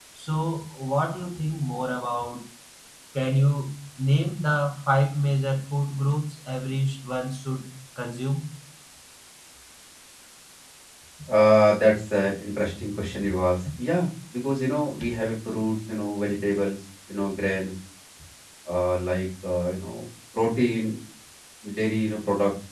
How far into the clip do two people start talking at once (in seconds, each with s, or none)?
none